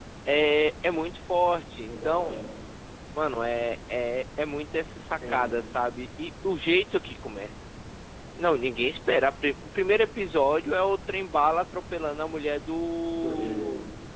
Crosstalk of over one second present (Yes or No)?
No